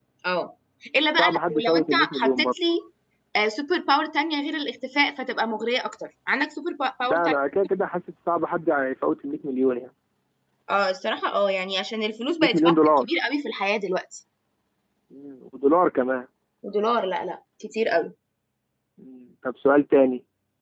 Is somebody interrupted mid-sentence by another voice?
Yes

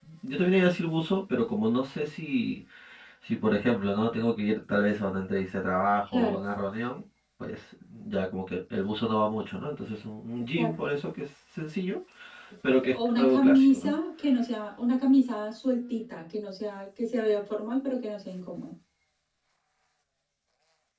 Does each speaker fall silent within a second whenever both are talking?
No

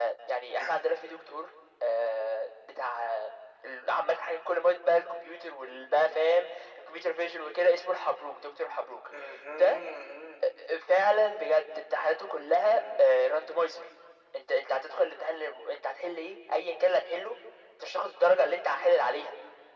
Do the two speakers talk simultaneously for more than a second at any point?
No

